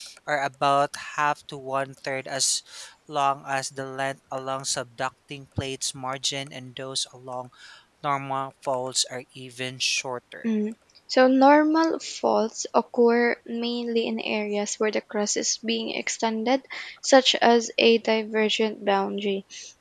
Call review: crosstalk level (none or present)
none